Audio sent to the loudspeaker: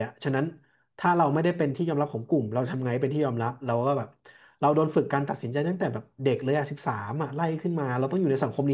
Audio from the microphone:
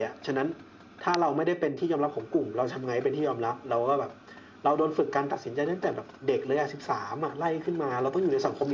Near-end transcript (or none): none